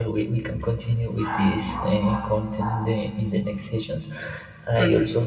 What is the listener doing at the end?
listening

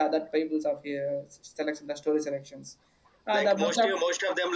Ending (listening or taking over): taking over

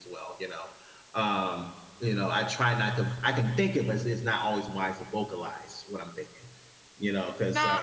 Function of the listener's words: taking over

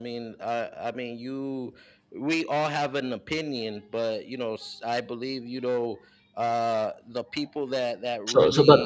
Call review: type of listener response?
taking over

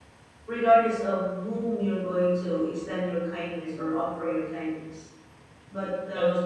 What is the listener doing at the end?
listening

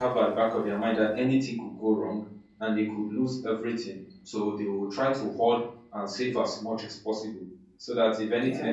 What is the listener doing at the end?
listening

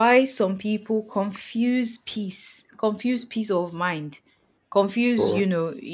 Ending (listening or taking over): listening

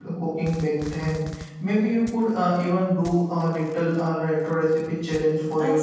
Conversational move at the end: taking over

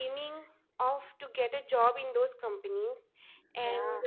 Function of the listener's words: listening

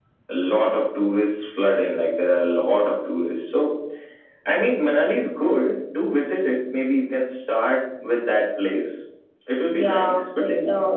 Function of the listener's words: taking over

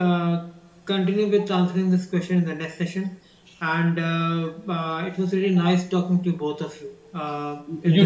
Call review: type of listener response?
listening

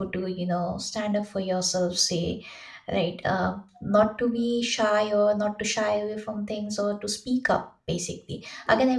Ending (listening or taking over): listening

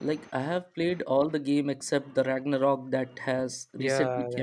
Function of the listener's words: taking over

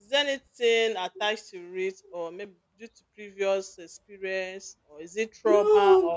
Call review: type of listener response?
taking over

